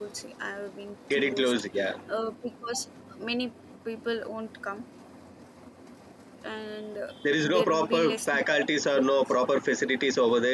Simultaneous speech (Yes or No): Yes